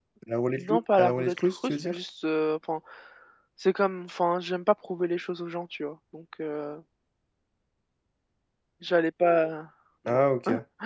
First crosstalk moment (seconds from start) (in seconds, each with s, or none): 0.6 s